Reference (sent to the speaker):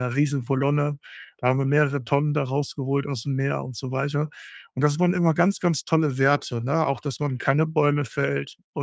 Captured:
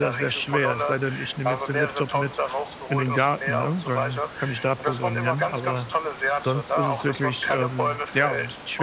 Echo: present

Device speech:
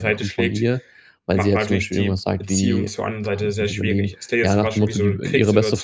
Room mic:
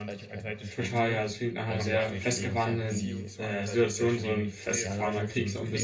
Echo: present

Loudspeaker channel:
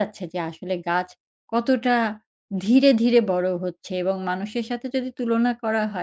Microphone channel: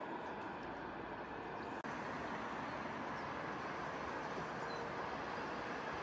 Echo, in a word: none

